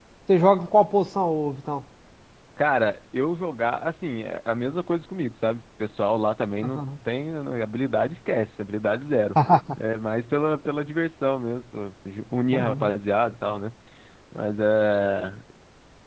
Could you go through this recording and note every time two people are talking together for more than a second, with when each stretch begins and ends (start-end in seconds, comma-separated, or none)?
none